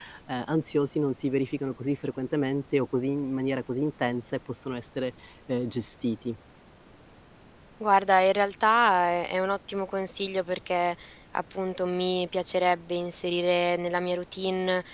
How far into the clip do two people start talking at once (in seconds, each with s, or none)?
none